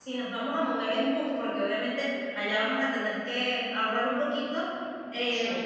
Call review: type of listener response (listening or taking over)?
listening